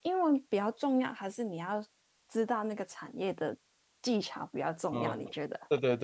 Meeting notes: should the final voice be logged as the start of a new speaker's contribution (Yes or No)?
Yes